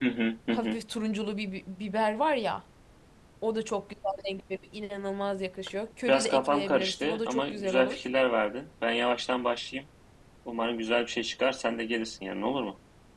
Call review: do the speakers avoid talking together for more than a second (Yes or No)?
No